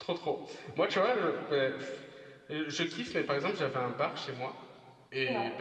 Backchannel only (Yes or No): Yes